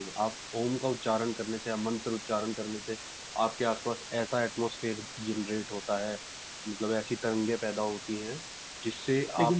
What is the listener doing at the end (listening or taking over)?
taking over